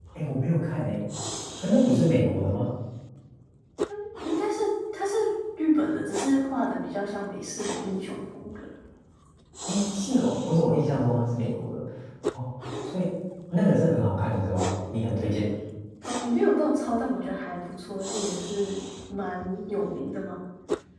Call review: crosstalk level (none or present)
none